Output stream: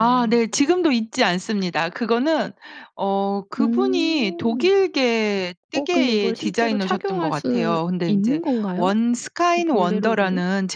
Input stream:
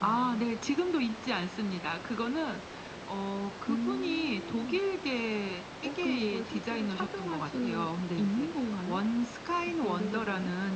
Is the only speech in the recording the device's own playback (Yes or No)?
Yes